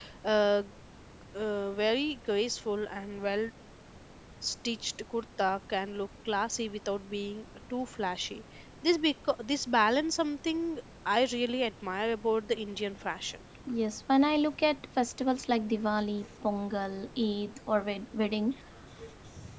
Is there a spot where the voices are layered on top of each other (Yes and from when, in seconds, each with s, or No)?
No